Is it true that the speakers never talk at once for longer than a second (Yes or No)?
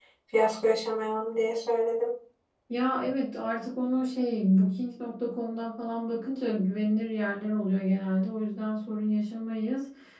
Yes